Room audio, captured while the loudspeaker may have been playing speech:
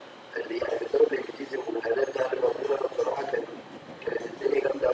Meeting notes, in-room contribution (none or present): none